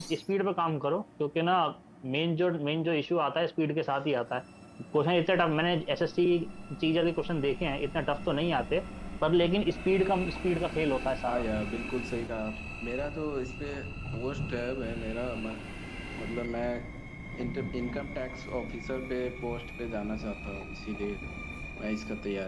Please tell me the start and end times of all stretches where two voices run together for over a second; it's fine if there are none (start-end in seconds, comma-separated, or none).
none